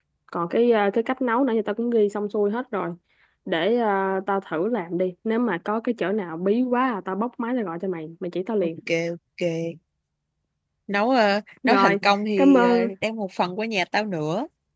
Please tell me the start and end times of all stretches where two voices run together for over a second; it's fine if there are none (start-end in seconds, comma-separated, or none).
none